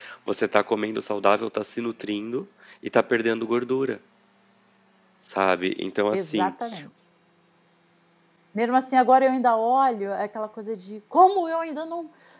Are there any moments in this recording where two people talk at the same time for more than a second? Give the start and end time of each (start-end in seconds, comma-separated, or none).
none